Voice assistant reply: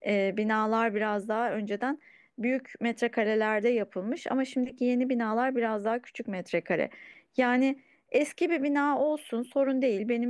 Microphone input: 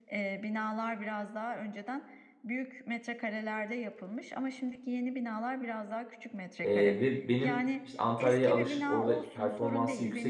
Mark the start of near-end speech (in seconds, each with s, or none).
6.6 s